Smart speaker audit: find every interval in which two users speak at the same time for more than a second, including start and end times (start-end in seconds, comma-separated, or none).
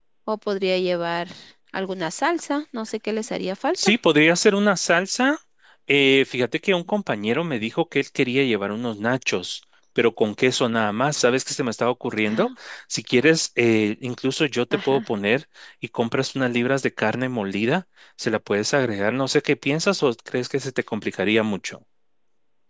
none